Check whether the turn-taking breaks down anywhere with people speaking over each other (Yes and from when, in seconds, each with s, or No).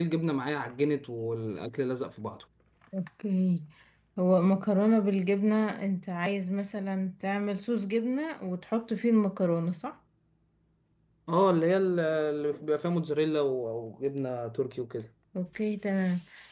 No